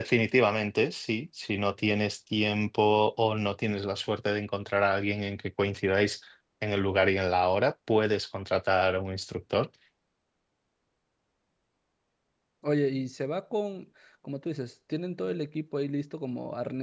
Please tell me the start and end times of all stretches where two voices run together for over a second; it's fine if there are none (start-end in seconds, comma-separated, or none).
none